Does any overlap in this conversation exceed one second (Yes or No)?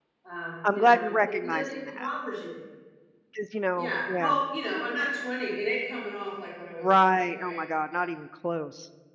Yes